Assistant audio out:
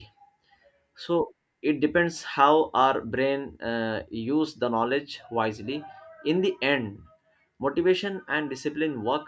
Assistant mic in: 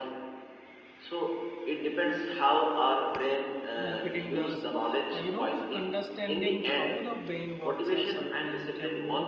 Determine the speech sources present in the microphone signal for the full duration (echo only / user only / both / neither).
both